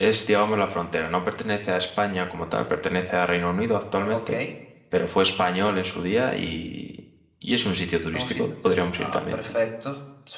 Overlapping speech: Yes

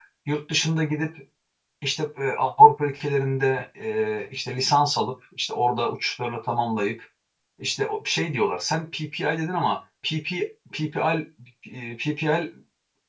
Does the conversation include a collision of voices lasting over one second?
No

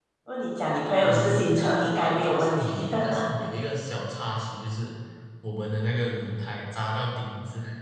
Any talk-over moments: Yes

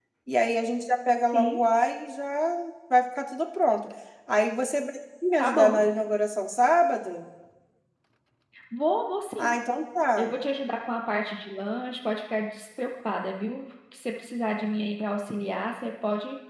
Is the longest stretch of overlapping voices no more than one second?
Yes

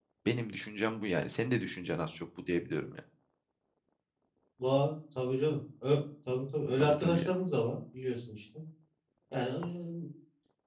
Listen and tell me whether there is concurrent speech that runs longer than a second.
No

